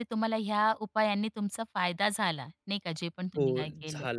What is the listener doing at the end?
taking over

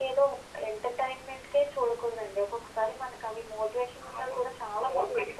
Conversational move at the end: taking over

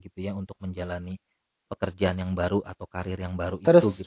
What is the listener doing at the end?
taking over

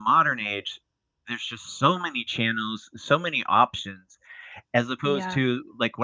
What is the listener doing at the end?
listening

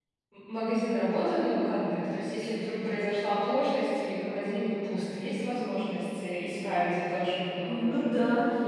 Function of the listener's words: taking over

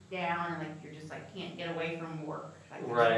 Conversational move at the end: taking over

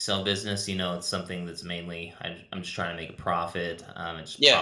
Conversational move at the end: listening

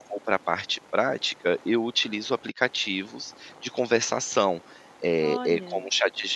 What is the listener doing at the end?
listening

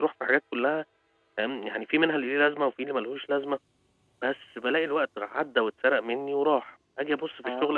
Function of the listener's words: listening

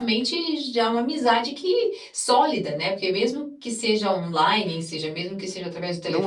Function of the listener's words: taking over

